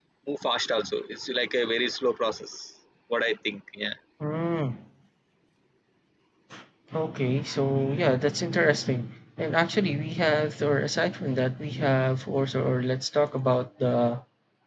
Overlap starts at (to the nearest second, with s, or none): none